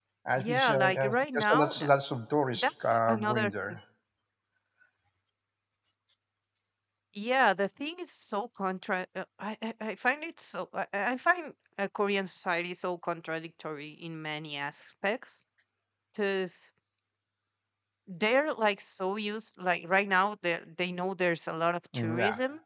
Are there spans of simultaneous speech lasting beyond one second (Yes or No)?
Yes